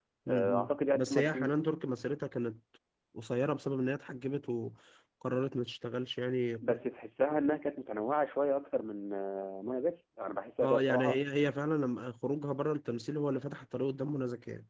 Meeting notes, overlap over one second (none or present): present